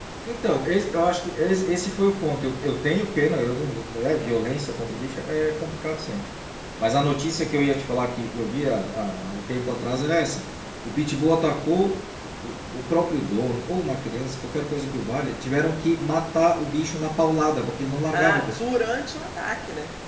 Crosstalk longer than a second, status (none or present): none